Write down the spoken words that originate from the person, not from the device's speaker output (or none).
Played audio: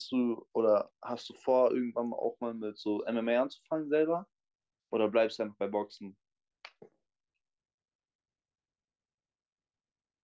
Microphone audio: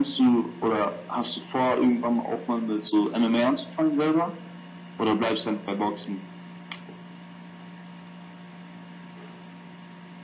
none